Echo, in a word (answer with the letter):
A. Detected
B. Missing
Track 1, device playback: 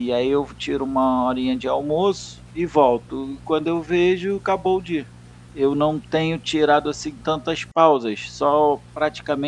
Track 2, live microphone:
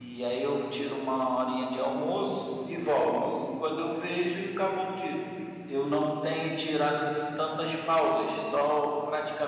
A